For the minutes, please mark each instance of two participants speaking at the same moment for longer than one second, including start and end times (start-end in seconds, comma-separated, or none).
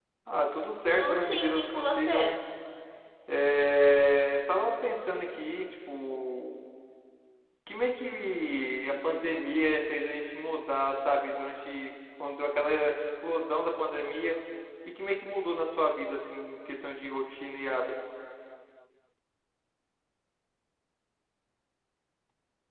0.9-2.4